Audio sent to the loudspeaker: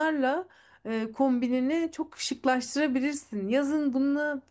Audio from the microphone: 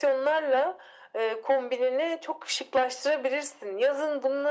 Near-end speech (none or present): none